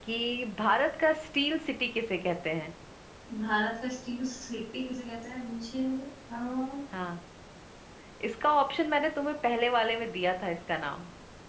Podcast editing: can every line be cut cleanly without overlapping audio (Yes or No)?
Yes